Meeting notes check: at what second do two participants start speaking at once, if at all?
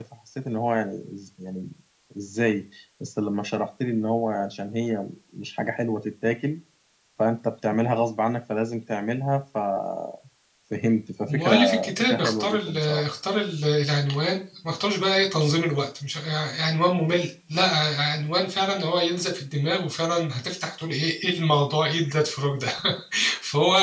11.3 s

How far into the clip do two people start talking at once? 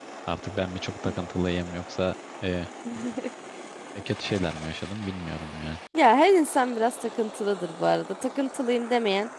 none

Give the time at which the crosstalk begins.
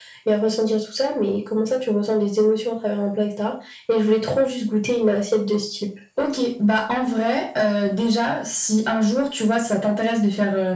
none

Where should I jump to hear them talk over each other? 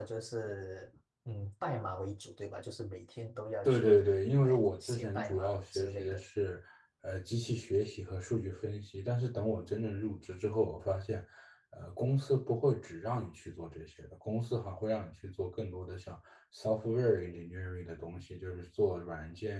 3.6 s

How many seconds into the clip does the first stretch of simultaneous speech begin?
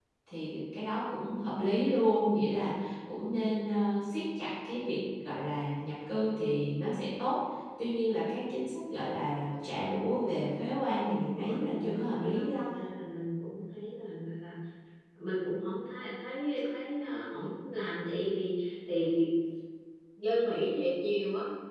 11.0 s

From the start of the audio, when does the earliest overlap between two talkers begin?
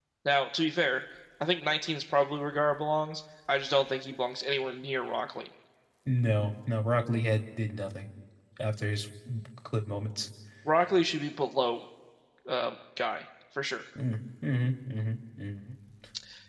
none

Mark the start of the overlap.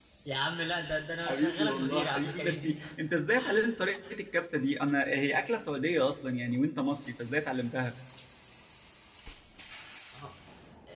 1.3 s

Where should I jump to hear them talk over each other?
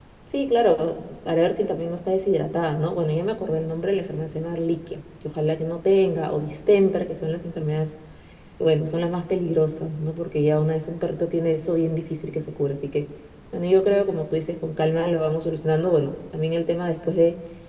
none

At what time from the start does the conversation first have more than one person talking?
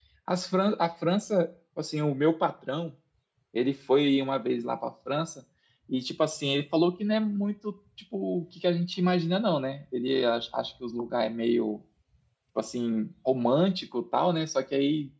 none

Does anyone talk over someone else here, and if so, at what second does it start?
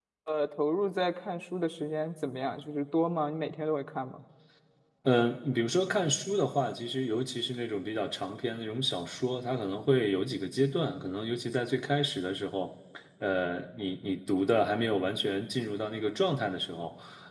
none

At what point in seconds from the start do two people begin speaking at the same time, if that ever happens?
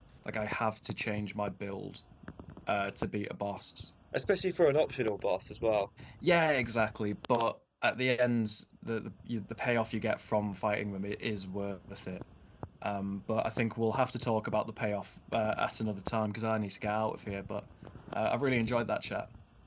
none

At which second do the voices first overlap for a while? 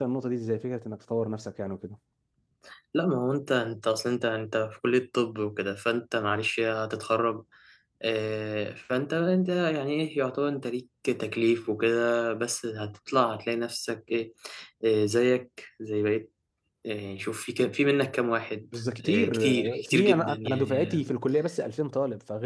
19.0 s

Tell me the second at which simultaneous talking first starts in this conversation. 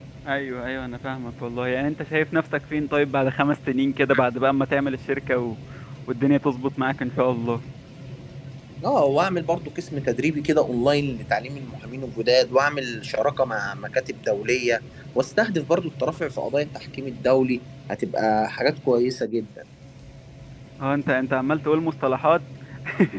none

